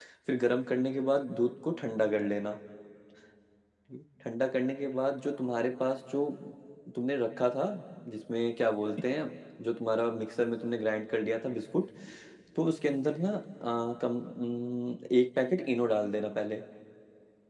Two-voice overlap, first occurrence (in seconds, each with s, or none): none